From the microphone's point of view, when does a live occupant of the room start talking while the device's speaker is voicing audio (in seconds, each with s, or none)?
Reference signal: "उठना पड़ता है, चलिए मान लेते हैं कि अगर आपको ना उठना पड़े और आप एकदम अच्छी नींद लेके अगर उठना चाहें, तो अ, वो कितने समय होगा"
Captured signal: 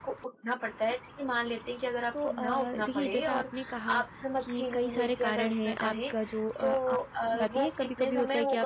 2.1 s